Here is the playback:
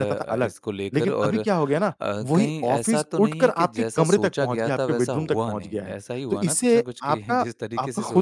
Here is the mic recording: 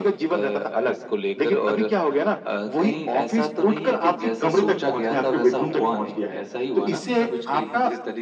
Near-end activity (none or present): none